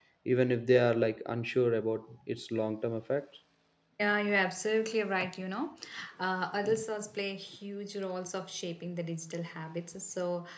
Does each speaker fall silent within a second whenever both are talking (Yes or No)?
Yes